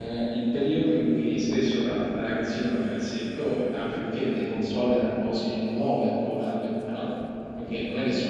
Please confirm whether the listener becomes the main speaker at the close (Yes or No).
No